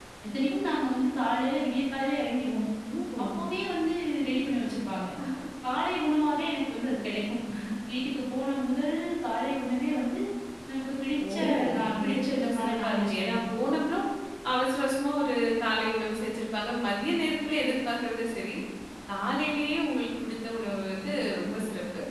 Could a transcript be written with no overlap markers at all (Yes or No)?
No